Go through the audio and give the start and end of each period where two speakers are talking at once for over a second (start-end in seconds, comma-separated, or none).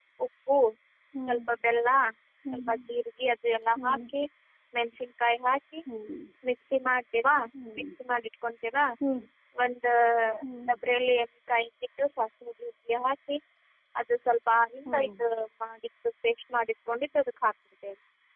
none